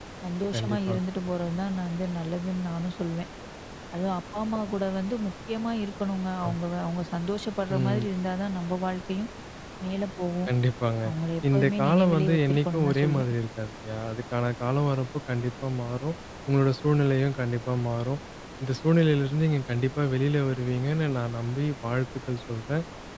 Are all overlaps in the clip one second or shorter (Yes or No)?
No